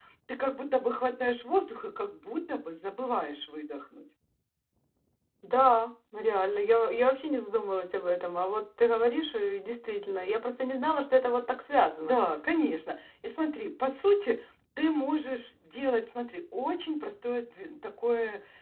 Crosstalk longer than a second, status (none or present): none